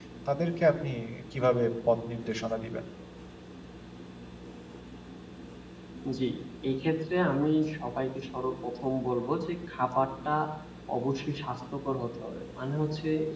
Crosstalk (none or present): none